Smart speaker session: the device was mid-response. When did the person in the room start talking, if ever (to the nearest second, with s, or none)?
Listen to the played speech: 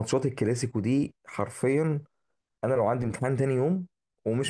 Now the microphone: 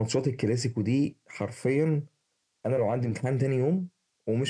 none